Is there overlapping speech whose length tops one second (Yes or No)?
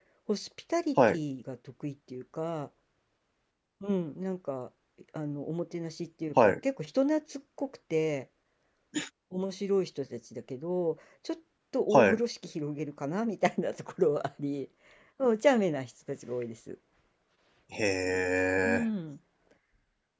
No